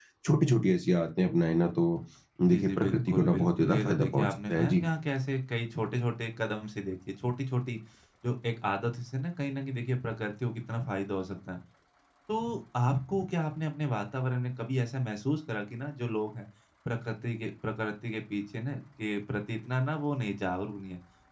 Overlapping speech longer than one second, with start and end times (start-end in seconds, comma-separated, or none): 2.5-4.8